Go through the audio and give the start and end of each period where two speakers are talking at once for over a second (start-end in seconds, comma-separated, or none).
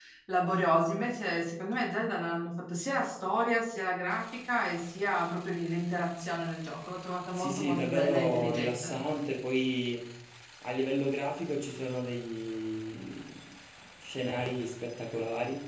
7.3-8.9